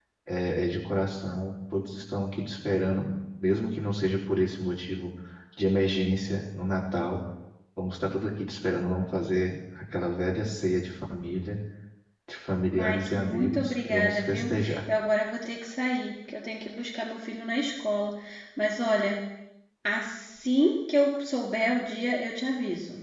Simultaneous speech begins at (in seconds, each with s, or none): 12.7 s